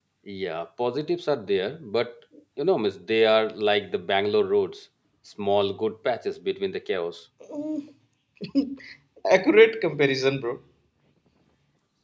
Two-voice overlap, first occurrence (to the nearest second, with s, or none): none